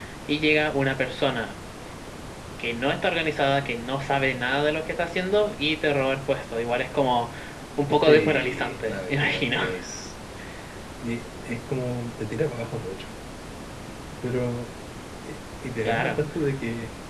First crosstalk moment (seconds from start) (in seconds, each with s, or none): 8.1 s